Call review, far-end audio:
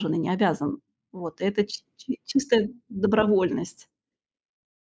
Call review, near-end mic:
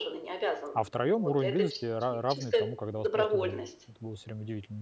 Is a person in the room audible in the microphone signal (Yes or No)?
Yes